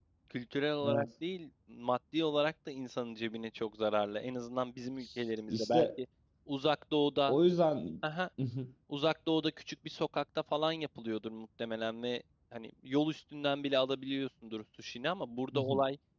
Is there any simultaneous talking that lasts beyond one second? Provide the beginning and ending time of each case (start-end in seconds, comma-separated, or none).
none